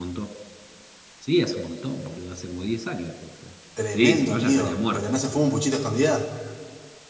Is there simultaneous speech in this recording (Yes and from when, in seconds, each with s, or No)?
Yes, from 3.8 s